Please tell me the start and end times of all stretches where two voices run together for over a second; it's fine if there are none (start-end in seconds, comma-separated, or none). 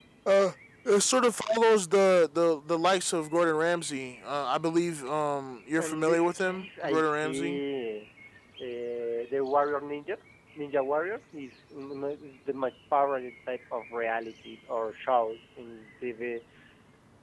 5.8-7.6